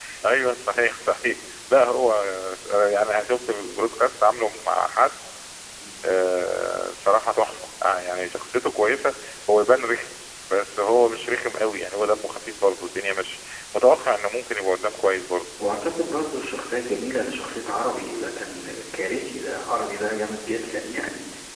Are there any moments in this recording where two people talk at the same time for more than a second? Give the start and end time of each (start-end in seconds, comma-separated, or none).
none